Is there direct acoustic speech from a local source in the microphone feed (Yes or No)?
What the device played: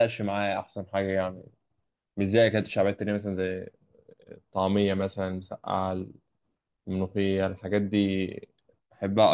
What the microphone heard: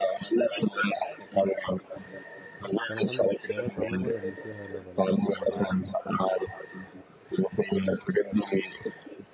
Yes